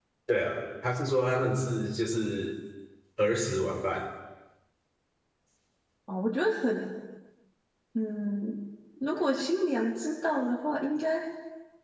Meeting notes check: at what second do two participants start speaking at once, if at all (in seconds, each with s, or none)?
none